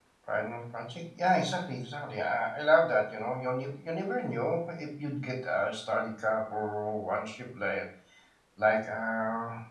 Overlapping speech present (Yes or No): No